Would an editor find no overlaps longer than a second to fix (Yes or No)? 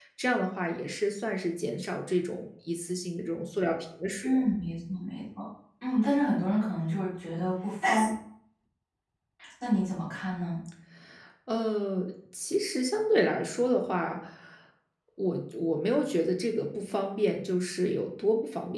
Yes